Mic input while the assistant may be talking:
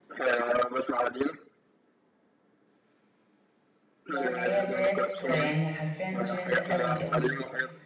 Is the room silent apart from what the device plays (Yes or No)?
No